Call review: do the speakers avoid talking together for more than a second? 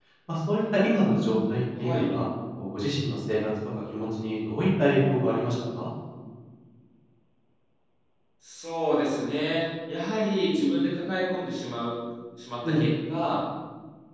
Yes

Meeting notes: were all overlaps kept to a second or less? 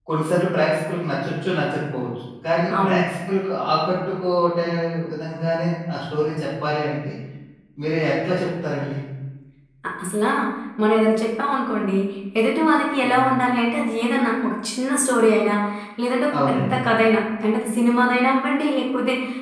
Yes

